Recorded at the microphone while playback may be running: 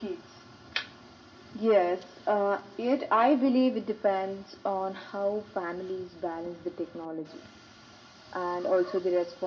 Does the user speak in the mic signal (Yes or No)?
No